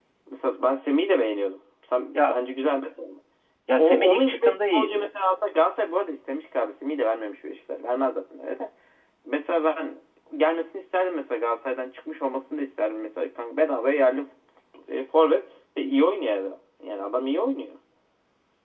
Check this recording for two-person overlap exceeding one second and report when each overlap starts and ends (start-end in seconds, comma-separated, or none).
3.8-5.2